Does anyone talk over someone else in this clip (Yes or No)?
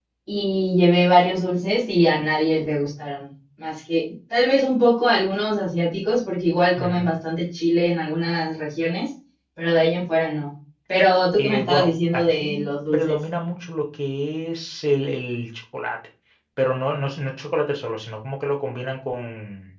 Yes